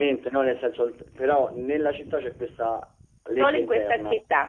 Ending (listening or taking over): taking over